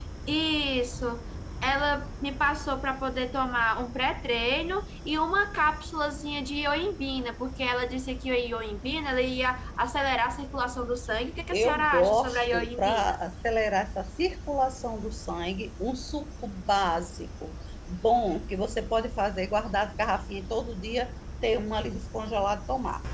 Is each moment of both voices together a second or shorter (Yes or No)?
No